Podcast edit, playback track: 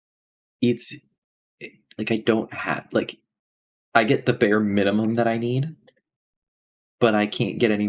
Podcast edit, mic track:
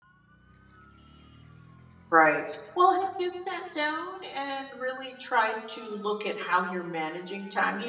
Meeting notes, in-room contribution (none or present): present